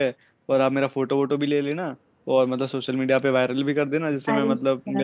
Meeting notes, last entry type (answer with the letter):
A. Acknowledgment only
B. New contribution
B